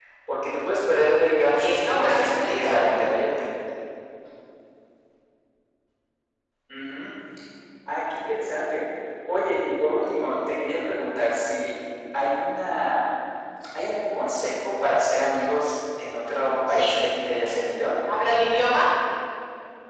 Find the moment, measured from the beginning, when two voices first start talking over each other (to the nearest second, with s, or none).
2 s